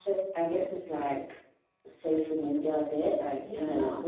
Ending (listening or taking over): listening